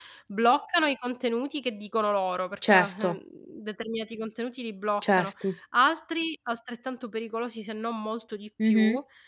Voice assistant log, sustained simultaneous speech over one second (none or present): none